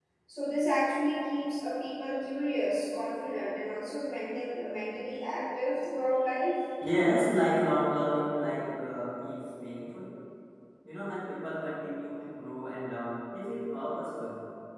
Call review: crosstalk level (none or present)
none